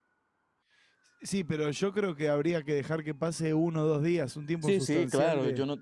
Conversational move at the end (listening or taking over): taking over